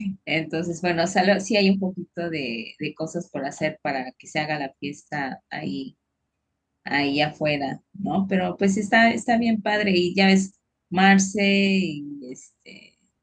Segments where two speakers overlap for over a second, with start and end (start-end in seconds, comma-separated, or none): none